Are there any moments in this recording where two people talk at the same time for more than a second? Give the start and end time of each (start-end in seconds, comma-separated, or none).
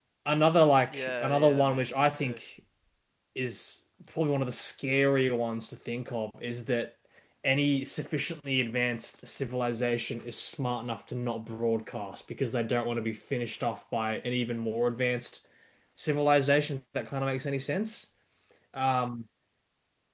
0.9-2.4